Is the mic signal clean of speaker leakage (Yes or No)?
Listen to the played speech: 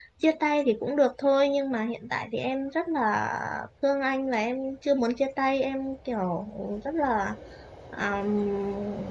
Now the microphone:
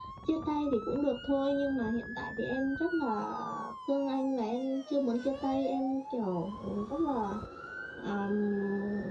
No